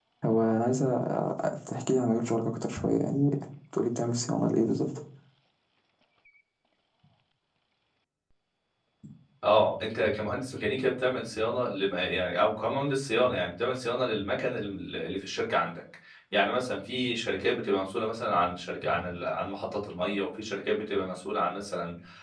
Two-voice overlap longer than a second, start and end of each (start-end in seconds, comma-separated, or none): none